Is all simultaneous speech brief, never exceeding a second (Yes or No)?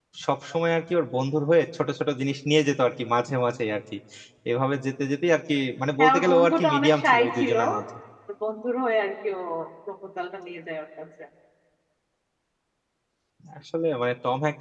No